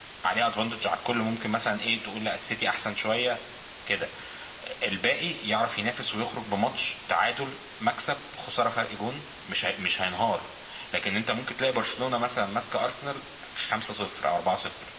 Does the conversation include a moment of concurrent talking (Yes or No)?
No